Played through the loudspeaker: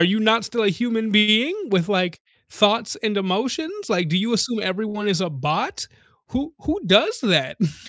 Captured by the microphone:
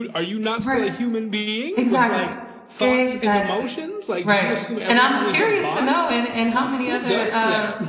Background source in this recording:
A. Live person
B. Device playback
B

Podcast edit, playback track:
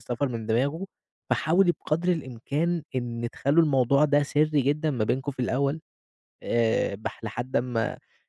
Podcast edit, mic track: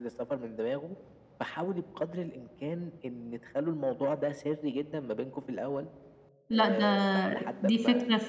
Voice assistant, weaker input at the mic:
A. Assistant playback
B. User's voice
A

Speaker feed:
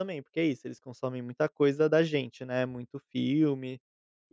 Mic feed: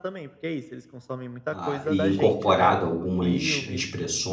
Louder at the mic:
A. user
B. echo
A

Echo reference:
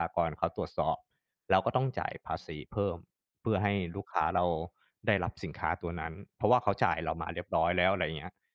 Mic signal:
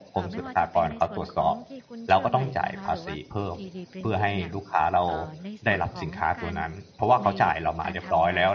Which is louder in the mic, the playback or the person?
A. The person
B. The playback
B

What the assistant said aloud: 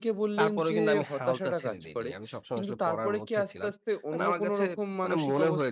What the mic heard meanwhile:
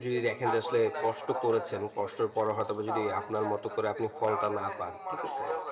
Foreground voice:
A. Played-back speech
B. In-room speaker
B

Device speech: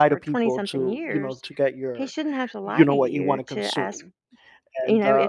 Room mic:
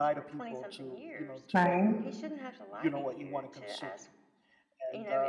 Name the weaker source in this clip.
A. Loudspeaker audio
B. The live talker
A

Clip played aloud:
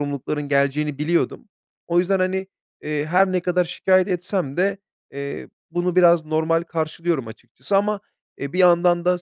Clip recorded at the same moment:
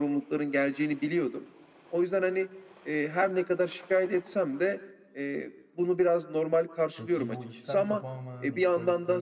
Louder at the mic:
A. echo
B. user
A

